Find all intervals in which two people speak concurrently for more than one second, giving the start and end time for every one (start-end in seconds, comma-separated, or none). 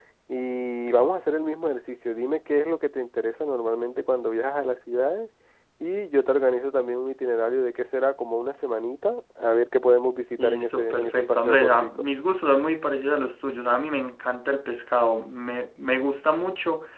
10.4-12.1